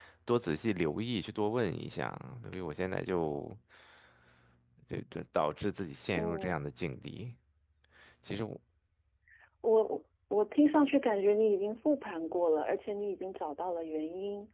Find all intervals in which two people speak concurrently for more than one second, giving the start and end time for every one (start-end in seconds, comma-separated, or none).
none